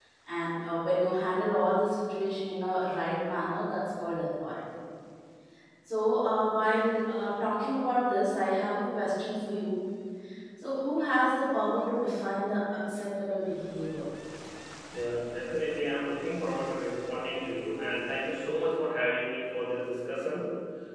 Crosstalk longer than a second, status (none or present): none